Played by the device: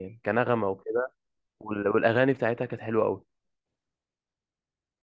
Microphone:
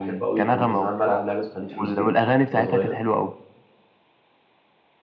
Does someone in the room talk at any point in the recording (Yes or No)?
Yes